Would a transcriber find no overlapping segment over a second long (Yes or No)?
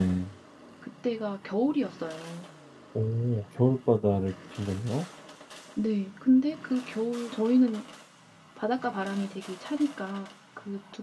Yes